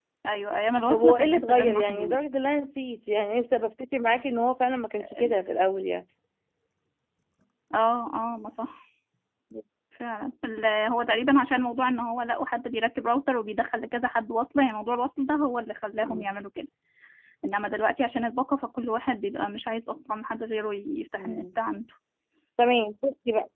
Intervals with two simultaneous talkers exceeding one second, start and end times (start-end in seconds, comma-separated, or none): 0.9-2.2